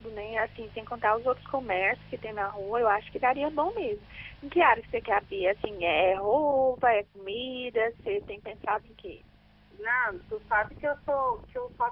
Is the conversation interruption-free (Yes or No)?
Yes